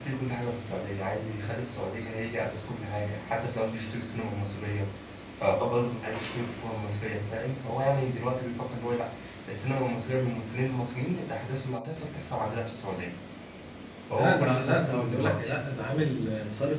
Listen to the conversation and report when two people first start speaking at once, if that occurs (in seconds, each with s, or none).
14.1 s